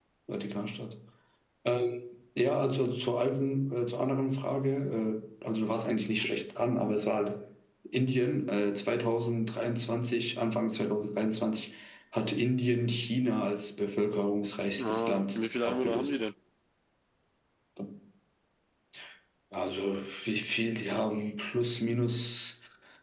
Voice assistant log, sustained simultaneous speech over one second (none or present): present